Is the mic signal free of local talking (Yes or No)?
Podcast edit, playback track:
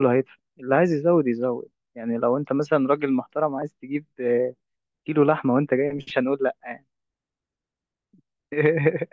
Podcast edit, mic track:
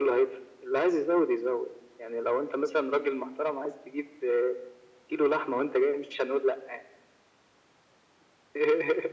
Yes